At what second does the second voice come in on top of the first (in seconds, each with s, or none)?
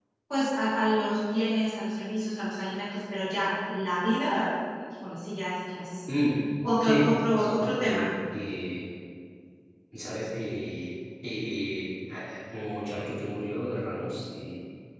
6.8 s